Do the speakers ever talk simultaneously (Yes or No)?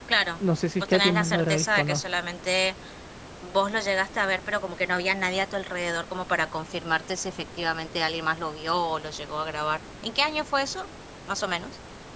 Yes